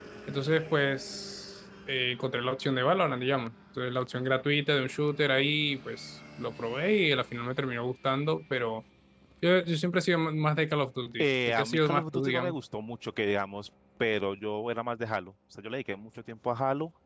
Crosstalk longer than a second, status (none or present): present